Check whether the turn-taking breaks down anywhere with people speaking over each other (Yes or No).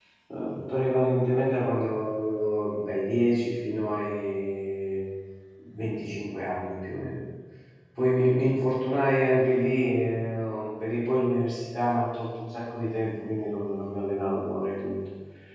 No